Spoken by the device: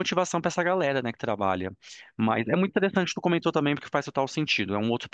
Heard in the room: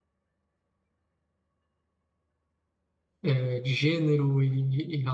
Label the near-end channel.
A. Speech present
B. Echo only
A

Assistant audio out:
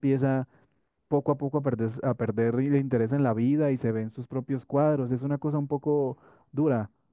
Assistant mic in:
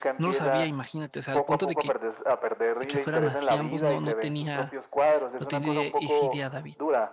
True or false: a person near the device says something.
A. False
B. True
B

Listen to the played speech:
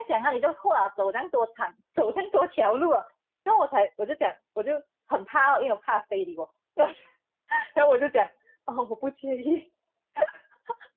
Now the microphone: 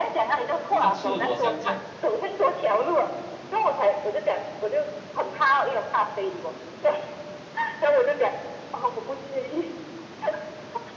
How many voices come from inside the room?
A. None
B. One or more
B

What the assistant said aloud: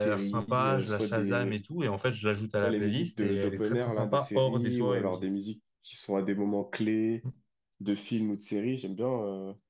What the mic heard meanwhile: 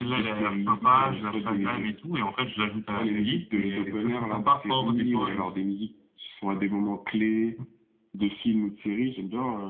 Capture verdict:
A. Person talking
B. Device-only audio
B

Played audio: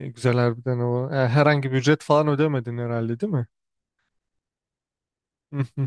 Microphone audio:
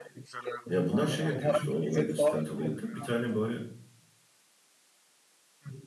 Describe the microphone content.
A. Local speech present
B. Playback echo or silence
A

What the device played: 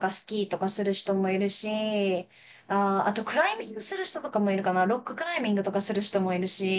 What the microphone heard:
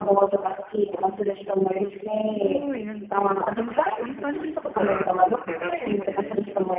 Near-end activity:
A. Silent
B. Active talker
B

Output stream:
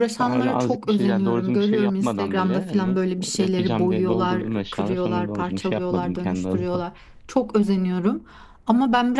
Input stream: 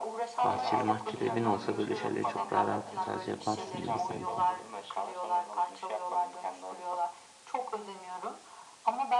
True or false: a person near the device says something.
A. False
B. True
B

